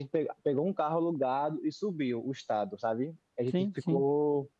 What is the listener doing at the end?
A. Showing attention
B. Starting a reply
A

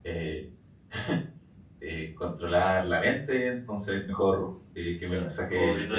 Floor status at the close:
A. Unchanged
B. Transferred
B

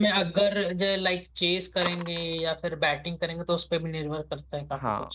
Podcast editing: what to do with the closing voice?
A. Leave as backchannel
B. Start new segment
B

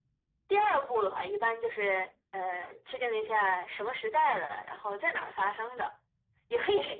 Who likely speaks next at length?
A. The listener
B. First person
B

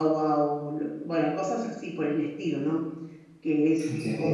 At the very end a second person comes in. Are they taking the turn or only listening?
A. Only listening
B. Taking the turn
A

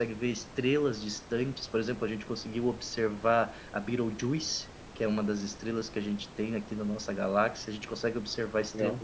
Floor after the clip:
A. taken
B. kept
B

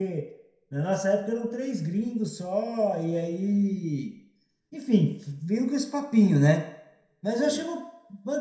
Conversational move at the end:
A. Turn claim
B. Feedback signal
B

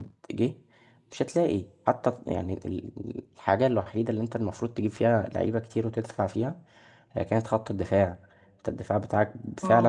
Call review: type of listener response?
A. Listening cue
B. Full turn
B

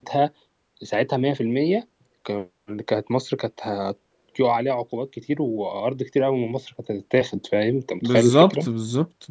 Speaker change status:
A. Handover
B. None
A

